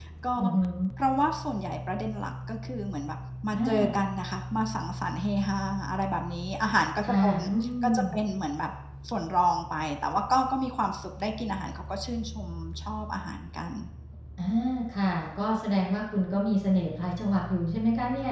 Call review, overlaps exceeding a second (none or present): none